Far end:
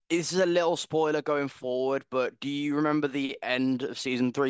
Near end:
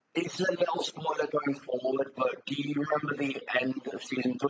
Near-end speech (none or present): none